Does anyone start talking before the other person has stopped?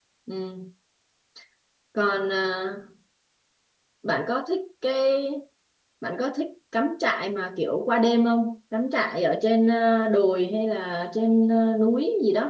No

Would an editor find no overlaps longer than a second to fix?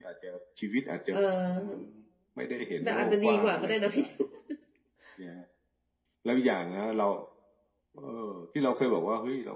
No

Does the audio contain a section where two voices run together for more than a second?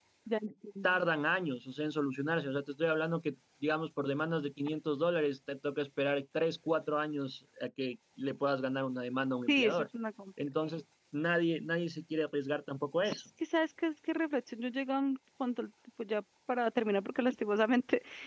No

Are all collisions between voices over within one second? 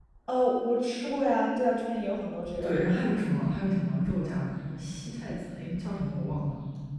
Yes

